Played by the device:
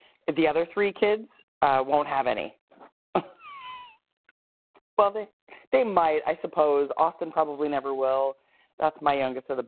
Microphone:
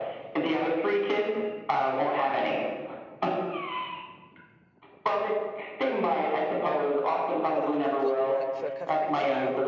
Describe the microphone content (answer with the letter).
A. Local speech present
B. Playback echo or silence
A